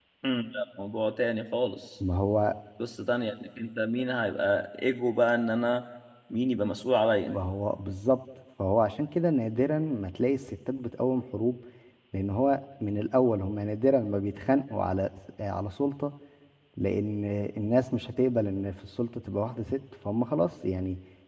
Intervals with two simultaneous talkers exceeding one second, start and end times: none

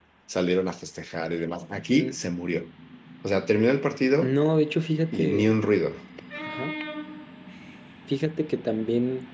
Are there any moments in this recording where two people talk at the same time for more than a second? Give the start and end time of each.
none

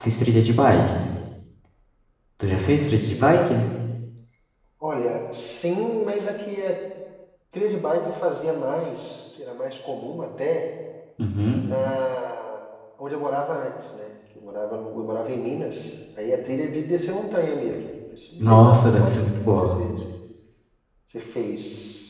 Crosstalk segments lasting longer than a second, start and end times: 18.4-19.8

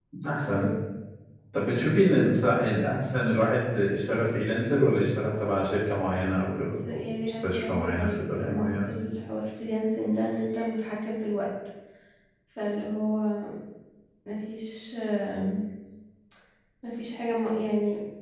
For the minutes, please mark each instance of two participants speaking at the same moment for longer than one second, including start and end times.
6.9-8.9

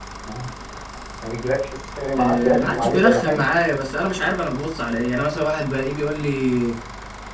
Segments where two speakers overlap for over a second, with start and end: 2.2-3.4

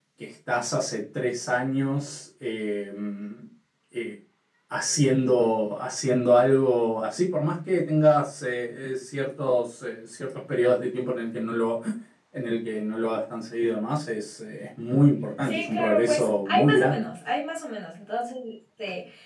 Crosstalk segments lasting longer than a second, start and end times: 15.4-17.1

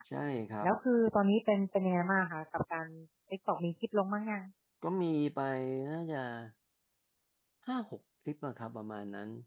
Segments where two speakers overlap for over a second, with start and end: none

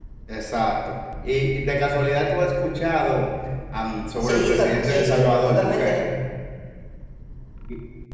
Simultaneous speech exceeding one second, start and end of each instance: 4.2-6.0

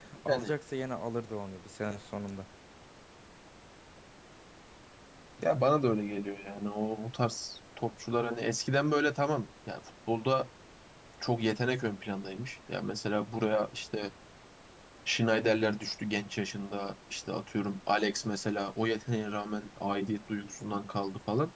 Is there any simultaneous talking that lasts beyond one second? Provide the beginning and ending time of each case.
none

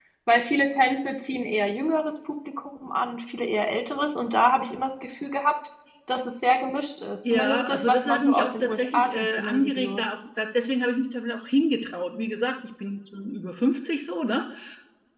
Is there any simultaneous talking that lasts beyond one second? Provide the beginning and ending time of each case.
7.3-10.0

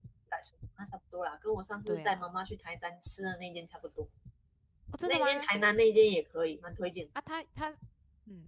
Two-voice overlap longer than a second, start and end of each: none

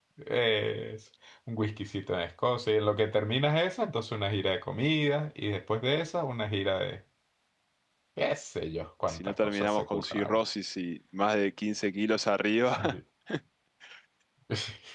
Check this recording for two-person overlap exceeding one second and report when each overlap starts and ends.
9.1-10.4

